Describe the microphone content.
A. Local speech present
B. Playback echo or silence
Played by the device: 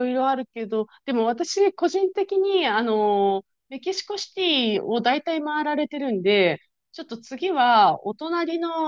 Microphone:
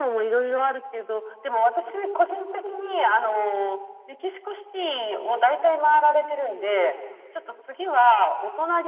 B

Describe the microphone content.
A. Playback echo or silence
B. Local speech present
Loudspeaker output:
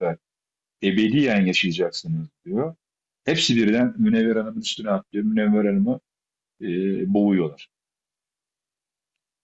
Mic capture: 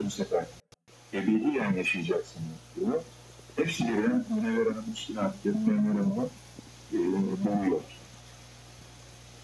A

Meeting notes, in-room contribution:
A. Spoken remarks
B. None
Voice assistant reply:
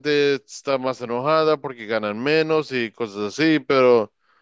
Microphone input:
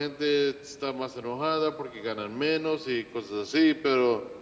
B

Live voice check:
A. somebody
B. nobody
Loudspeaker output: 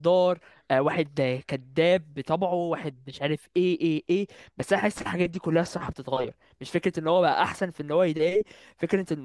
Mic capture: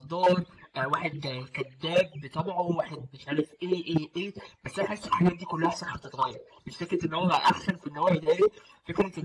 B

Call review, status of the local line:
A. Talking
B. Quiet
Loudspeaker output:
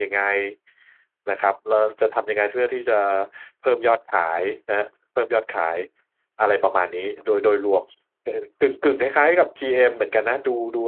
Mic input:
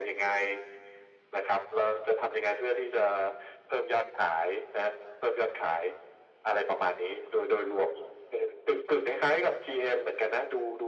B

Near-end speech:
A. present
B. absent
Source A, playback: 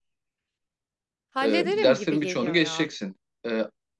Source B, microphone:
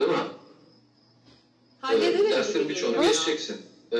A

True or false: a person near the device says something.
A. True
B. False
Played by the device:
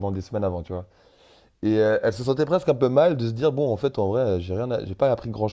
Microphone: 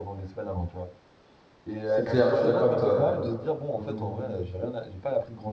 A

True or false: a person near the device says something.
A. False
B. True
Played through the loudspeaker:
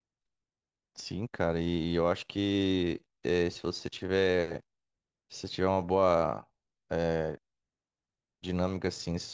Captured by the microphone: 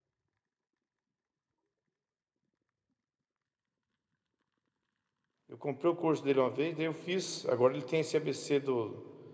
B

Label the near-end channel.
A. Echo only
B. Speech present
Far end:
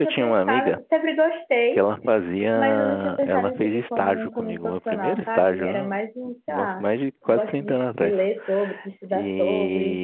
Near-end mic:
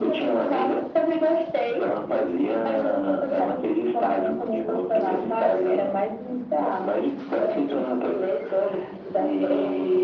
A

